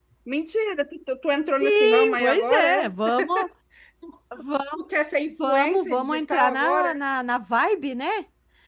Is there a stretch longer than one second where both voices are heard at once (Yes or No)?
Yes